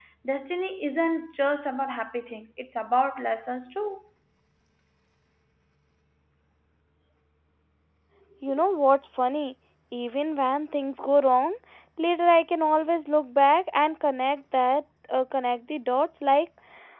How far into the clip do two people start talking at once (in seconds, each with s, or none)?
none